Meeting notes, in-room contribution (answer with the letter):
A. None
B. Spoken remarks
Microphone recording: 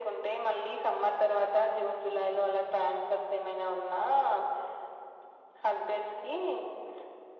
A